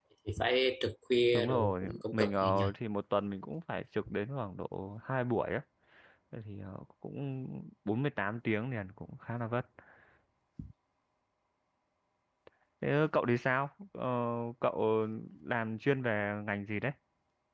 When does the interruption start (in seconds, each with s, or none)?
1.3 s